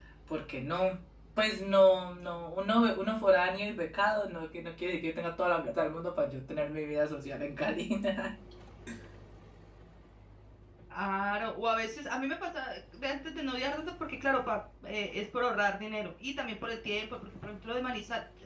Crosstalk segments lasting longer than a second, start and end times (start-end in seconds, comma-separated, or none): none